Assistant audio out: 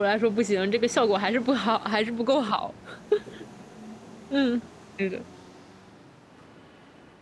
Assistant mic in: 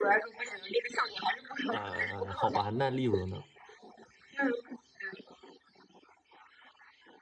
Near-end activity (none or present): present